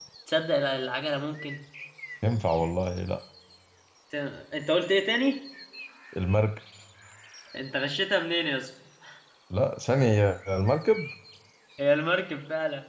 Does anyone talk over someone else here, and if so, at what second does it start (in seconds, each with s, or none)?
none